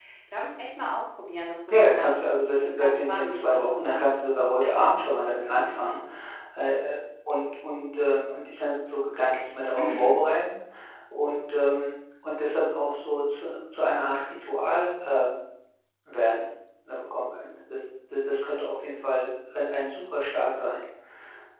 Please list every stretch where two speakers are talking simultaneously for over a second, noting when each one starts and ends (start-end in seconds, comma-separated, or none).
1.8-4.2